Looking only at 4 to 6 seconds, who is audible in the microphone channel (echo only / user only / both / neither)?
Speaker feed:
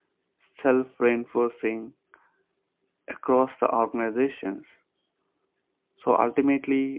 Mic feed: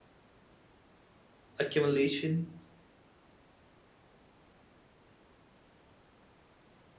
neither